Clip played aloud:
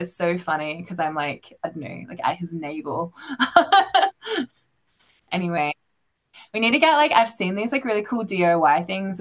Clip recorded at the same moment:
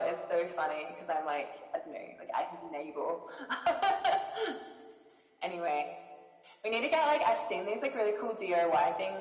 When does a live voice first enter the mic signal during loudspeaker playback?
none

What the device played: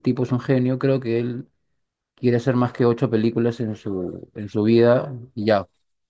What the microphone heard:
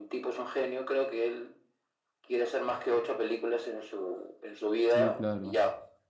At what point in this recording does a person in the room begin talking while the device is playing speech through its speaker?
5 s

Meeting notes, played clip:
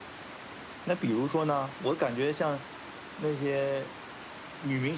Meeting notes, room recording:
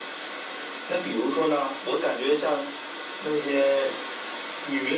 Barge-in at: none

